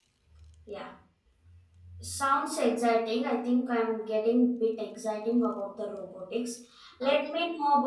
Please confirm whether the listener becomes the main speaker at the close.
No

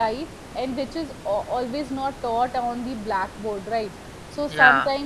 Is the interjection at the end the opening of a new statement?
No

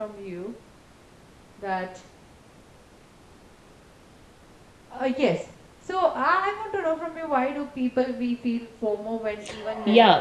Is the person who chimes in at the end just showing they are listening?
No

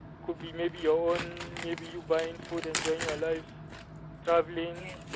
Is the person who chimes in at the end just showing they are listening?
Yes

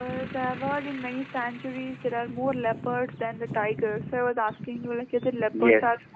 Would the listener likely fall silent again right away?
No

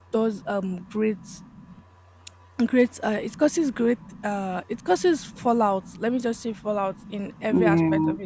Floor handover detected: No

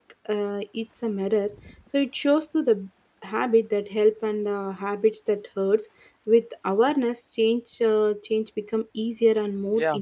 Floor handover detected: Yes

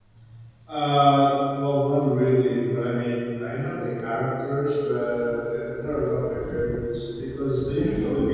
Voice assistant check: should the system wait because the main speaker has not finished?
Yes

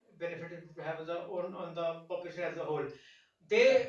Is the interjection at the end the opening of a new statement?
No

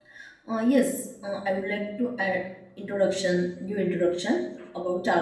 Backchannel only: Yes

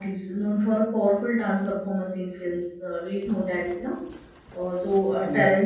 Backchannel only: Yes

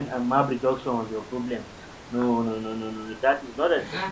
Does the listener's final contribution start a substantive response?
Yes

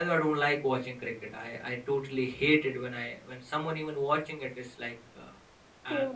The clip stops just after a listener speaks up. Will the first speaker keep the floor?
Yes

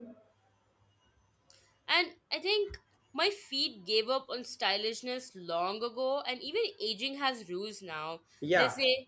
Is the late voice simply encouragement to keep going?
No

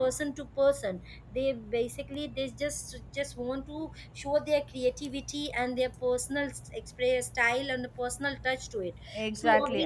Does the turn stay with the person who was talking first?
No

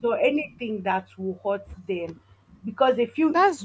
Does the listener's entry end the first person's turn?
No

